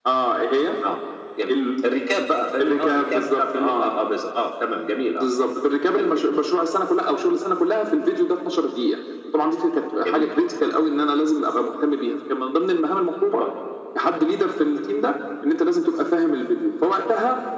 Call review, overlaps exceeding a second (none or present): present